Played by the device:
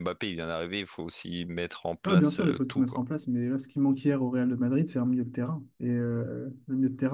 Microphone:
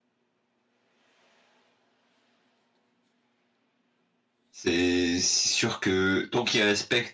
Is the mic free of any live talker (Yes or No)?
No